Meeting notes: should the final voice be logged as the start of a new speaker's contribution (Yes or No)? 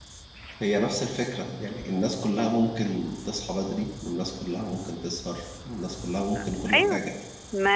Yes